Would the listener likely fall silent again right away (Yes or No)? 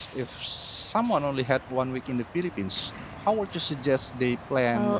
No